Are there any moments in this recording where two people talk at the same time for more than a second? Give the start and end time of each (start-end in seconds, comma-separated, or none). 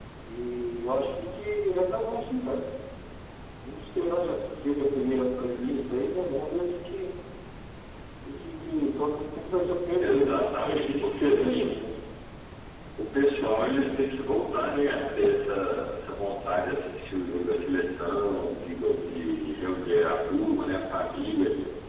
10.0-11.7